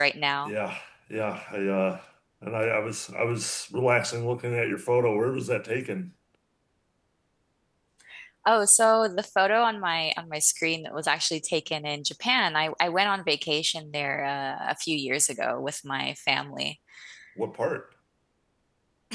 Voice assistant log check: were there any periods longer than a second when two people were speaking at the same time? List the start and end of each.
none

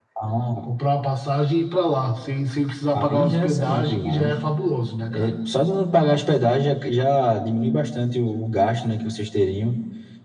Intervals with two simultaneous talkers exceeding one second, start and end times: 2.9-4.4

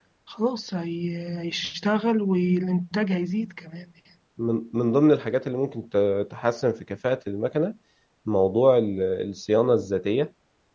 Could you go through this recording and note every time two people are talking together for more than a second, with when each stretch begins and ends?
none

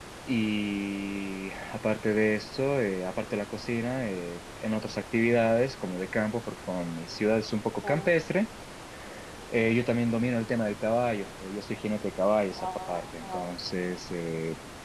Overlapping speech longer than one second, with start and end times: 12.5-13.7

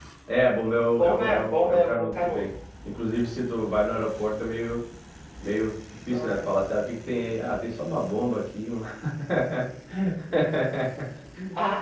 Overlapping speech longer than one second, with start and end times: 1.0-2.4

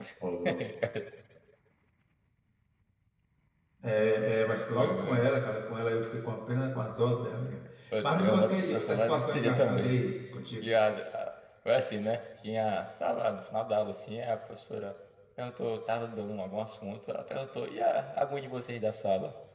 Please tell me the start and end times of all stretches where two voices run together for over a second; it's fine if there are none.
8.2-9.9

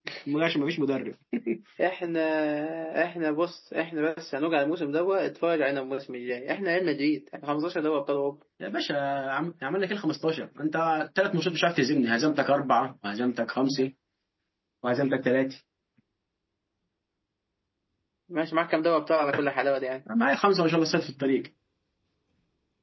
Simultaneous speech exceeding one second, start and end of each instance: none

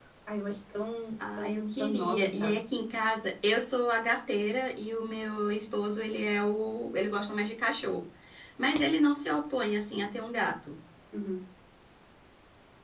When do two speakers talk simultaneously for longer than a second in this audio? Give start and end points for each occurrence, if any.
1.4-2.6

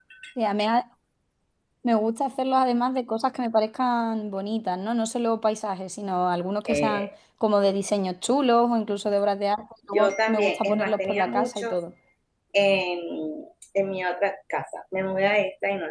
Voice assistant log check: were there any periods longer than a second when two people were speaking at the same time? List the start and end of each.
9.9-11.7

